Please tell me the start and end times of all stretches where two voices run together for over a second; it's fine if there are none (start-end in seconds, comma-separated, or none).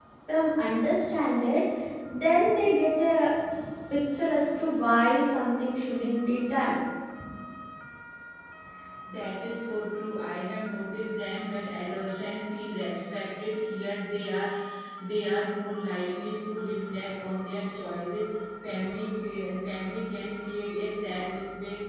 none